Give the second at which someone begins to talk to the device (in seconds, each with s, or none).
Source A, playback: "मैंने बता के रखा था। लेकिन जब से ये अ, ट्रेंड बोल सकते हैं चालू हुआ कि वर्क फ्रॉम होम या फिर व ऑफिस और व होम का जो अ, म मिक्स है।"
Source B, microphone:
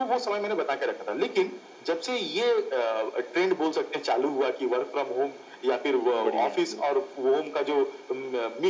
6.0 s